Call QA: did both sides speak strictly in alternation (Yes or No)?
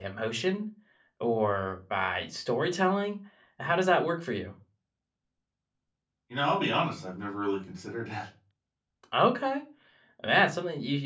Yes